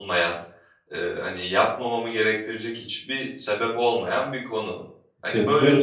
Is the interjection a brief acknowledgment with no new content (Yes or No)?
No